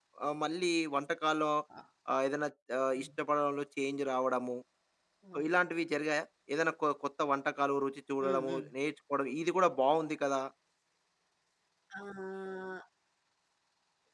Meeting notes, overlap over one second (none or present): none